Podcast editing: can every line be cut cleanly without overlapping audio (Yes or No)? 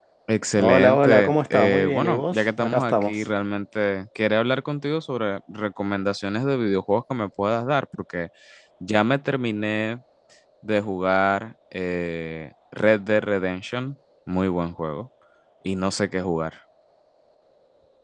No